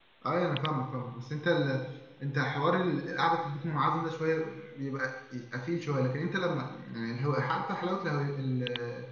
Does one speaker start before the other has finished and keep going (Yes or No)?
No